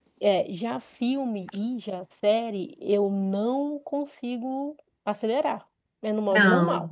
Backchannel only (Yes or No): No